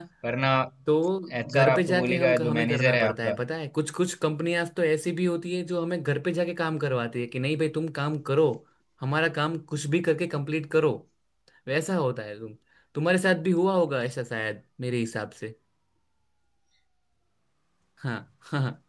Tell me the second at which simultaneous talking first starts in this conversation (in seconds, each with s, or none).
1.5 s